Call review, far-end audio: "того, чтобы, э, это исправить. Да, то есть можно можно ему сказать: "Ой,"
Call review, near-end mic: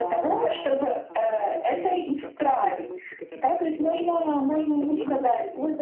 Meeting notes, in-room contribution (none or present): present